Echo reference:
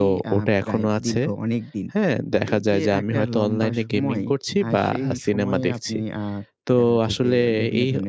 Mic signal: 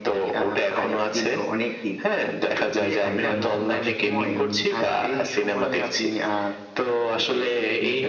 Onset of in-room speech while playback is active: 2.7 s

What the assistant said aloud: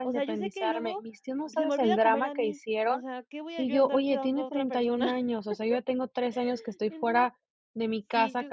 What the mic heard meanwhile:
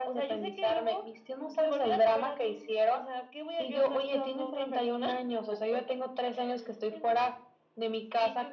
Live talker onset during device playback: none

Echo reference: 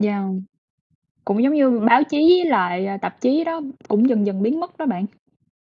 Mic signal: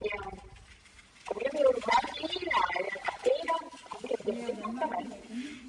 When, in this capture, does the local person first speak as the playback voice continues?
4.2 s

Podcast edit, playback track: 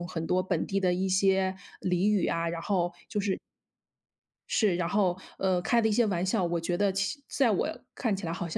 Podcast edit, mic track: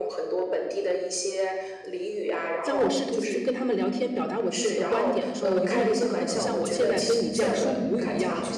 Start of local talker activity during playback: 2.6 s

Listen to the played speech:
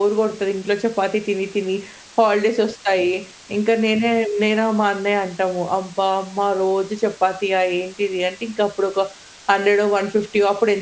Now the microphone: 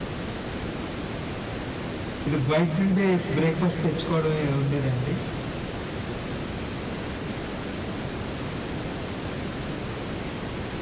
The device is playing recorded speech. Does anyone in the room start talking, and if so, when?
2.3 s

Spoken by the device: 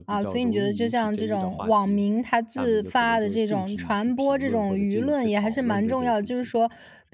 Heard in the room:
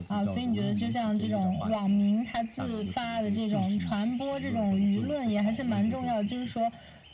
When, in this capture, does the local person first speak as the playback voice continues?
none

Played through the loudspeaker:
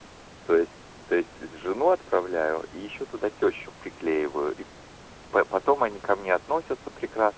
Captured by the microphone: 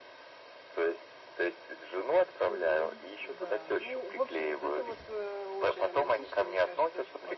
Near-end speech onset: 2.4 s

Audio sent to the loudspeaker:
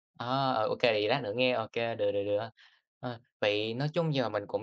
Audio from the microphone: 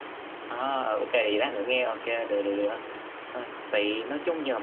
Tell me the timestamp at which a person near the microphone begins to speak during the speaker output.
none

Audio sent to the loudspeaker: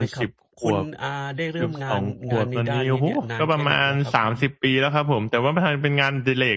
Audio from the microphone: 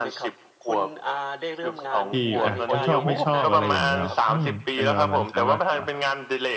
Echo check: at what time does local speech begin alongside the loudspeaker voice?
2.1 s

